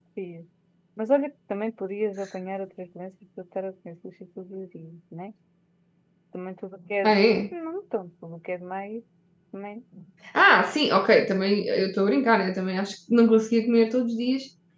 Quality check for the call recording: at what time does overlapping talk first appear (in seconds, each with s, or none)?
none